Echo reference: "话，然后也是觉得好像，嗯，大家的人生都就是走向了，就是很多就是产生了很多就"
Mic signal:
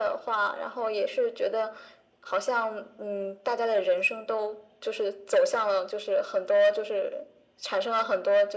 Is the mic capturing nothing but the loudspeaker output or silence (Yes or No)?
Yes